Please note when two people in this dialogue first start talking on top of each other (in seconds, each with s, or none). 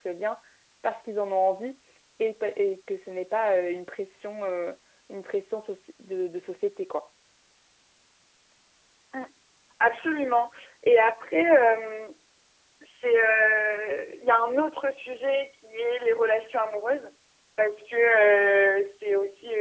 none